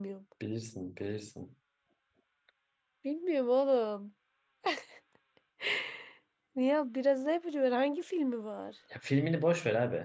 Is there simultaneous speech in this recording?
No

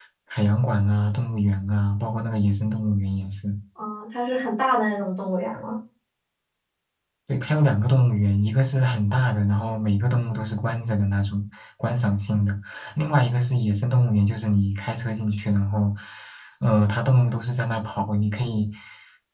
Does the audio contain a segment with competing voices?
No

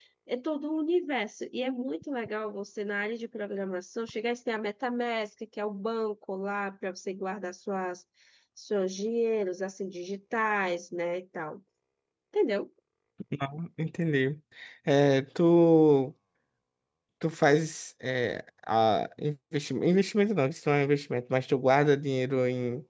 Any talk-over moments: No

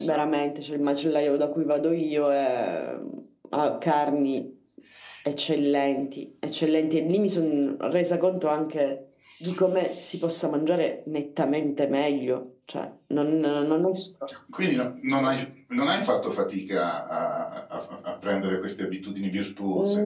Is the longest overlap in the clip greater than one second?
No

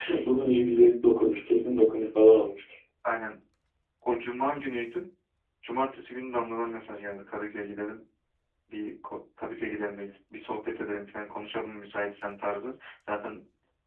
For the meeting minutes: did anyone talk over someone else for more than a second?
No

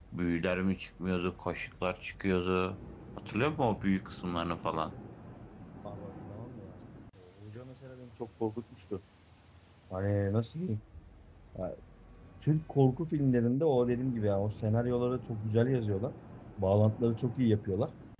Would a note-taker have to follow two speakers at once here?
No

